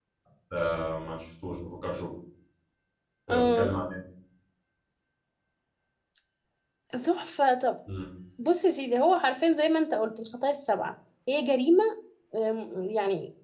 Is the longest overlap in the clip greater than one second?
No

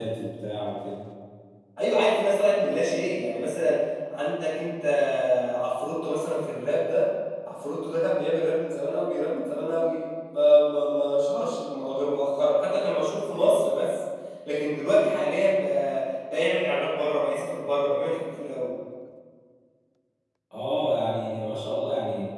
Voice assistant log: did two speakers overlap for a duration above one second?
No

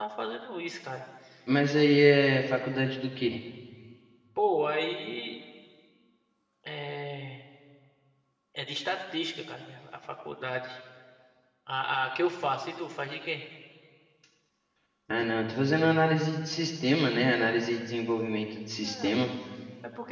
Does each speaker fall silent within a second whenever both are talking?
Yes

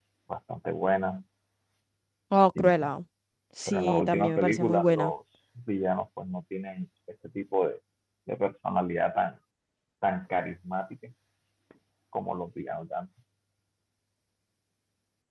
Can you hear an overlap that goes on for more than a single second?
Yes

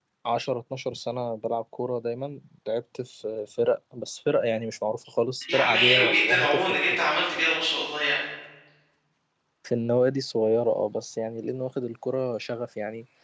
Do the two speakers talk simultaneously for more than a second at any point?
Yes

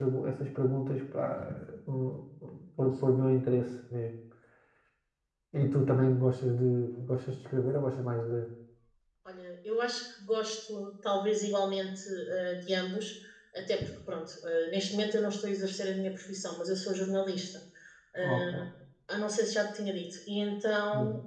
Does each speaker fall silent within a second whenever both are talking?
Yes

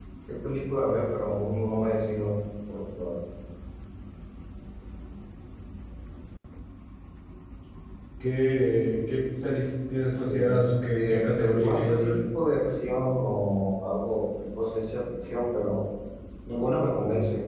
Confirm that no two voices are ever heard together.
No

